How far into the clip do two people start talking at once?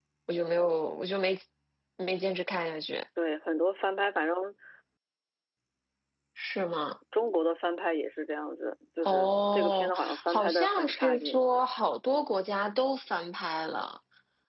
9.0 s

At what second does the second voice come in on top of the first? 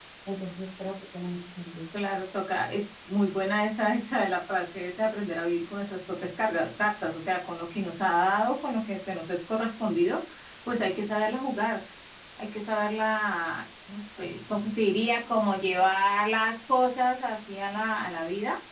none

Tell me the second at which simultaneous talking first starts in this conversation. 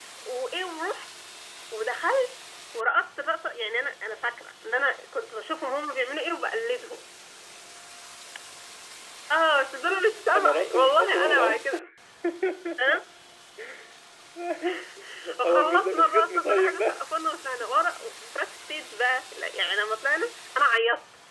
10.3 s

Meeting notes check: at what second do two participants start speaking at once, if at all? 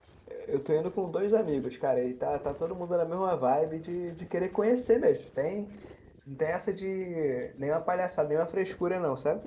none

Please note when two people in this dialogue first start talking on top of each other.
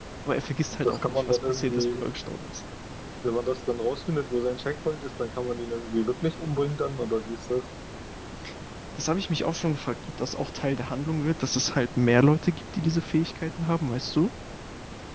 0.8 s

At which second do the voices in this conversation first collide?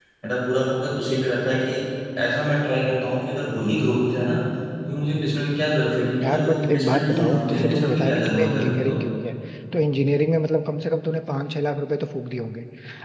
6.2 s

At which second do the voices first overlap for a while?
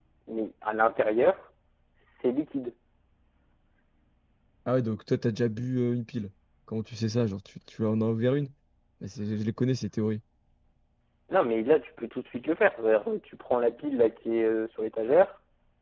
none

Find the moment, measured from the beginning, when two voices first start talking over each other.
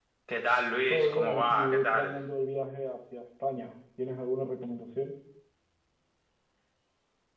0.9 s

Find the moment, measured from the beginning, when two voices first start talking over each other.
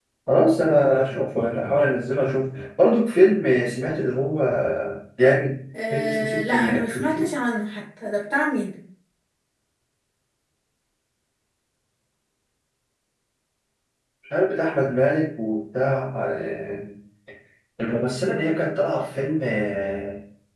5.9 s

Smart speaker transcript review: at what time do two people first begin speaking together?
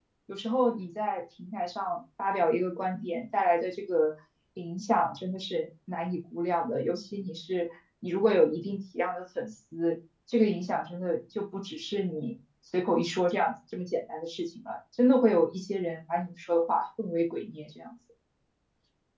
none

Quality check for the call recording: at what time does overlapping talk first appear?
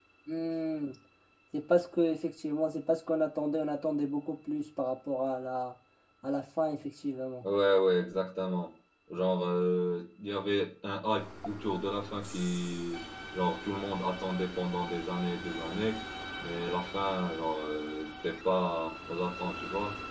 none

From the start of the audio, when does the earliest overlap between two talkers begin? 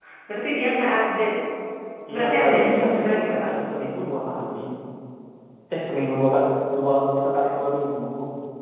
2.1 s

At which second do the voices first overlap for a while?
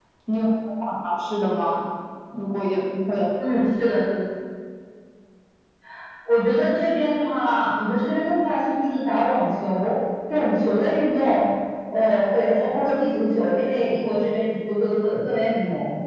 none

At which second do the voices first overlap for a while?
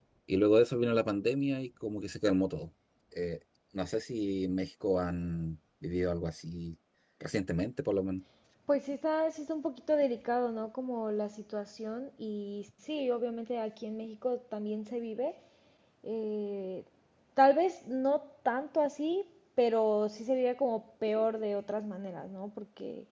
none

